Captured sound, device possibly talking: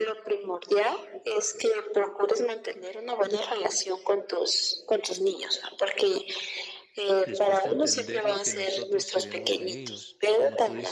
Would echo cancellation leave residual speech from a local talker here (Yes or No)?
Yes